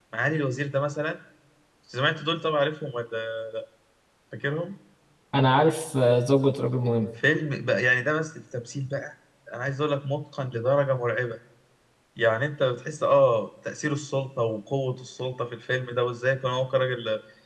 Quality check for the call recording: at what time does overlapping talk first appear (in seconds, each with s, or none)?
none